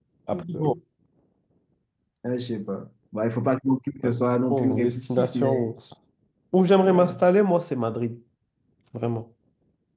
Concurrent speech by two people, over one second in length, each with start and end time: 4.5-5.7

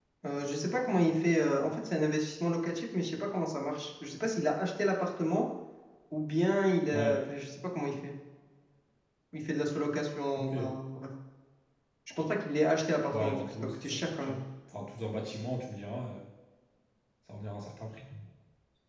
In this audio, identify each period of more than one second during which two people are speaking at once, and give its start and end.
13.1-14.4

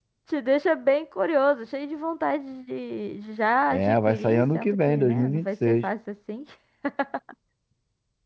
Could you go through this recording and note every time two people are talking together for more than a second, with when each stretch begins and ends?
3.7-5.8

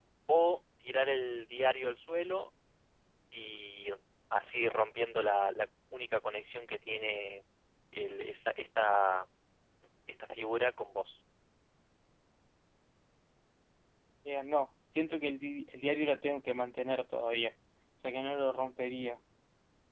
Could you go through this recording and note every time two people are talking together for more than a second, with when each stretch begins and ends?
none

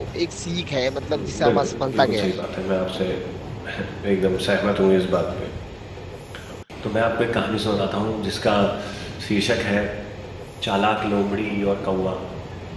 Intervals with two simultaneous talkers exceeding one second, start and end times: 1.1-2.4

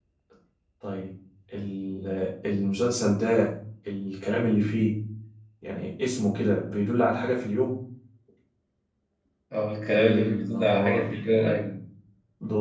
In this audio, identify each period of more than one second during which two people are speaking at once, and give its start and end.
9.9-11.2

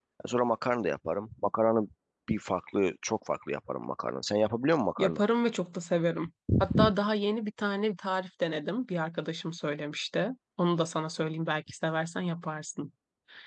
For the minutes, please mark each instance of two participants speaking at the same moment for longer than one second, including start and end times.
none

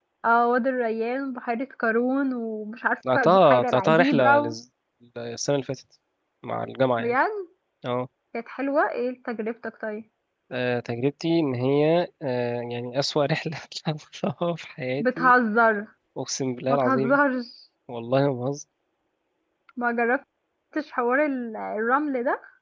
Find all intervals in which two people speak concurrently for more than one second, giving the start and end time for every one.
3.1-4.5

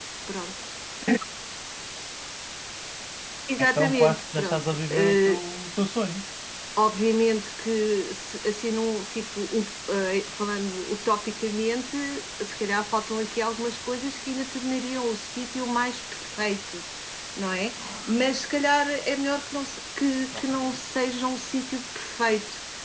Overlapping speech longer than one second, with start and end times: 3.6-5.4

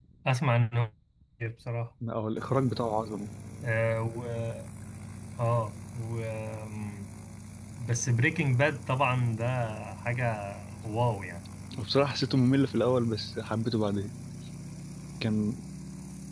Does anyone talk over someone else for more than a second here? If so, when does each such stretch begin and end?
none

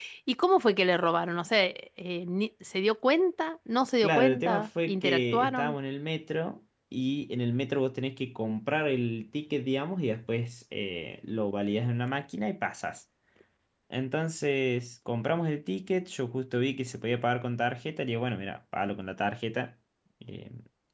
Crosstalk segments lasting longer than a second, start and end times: 4.0-5.8

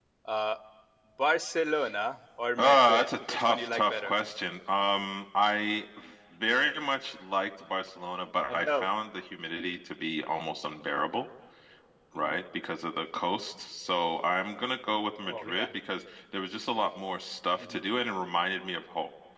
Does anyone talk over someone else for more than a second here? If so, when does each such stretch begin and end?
2.6-4.1

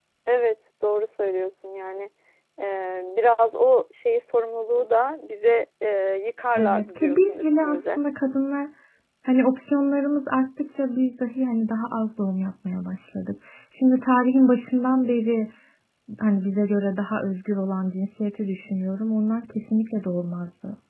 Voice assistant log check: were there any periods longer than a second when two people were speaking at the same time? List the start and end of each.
6.6-8.0

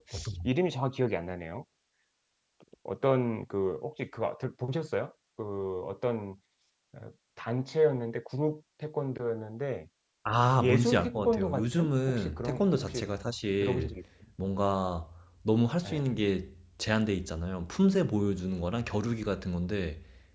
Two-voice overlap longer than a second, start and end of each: 10.6-13.0

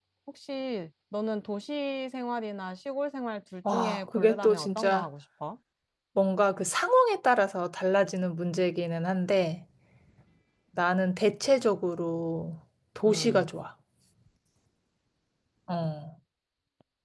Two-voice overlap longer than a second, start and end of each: 3.7-5.1

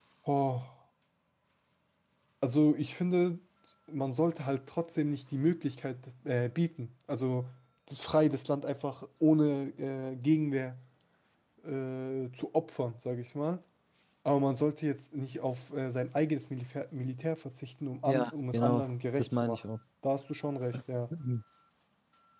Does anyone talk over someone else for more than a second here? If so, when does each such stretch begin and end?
18.1-19.8

